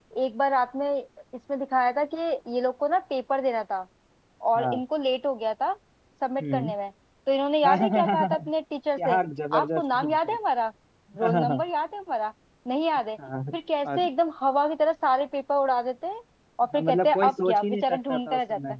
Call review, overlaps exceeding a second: present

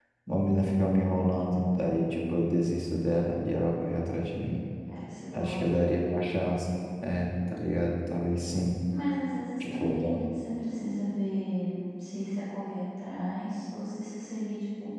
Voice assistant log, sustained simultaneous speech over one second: none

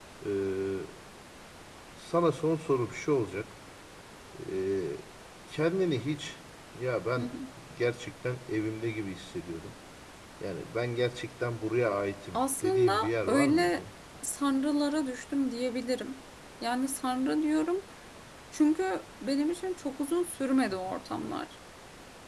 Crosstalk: present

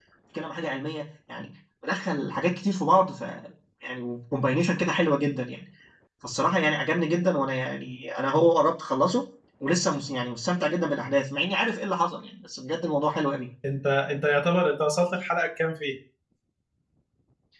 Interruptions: none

